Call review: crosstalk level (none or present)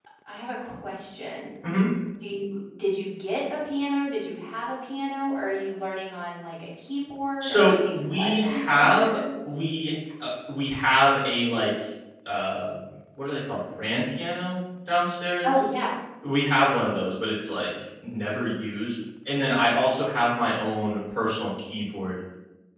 present